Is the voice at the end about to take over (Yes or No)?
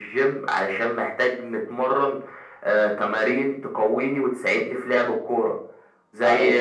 No